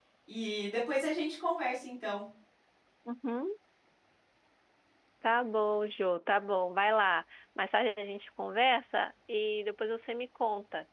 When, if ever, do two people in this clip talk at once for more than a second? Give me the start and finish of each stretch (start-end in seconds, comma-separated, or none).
none